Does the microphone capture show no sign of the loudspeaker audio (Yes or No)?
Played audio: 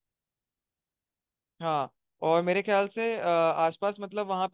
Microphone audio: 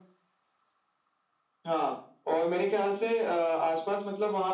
No